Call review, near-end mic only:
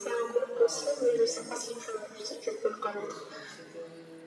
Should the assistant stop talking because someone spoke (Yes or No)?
Yes